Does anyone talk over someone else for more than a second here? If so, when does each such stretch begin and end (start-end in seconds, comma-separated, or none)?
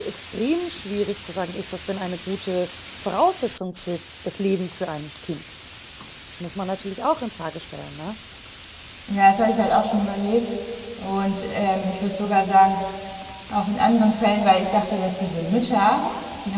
none